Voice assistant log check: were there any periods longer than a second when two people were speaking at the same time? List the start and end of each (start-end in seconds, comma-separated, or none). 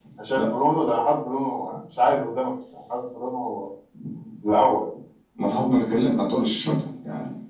none